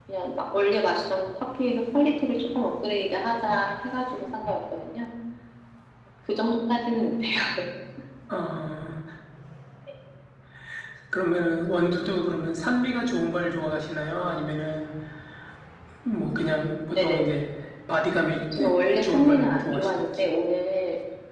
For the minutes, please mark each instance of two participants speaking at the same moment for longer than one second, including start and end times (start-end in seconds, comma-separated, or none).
19.0-20.2